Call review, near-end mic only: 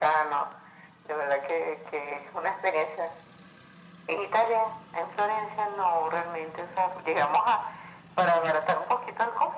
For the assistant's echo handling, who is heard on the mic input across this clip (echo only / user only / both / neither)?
echo only